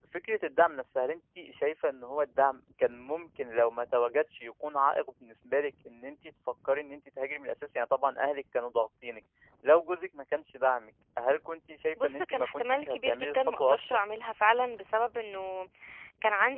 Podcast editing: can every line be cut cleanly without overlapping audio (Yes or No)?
No